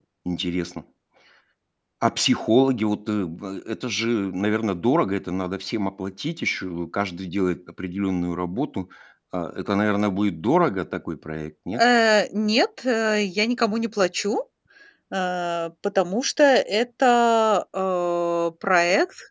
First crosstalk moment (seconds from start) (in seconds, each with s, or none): none